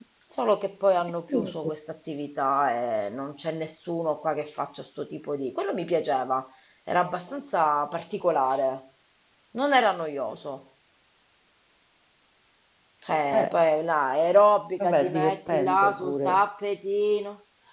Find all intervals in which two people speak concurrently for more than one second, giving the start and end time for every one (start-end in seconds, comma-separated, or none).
14.8-16.4